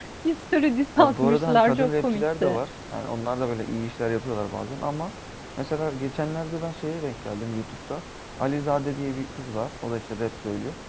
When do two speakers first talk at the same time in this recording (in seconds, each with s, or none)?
1.0 s